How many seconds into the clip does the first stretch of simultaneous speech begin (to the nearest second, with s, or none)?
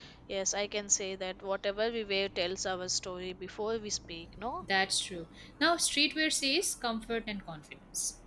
none